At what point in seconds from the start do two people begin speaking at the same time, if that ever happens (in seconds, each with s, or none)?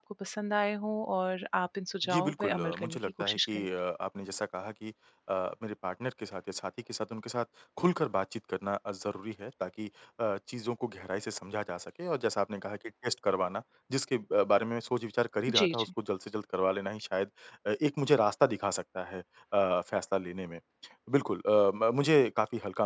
2.0 s